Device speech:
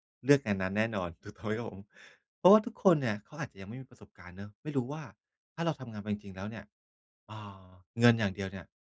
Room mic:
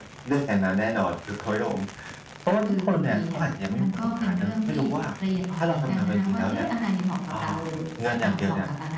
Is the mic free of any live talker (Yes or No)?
No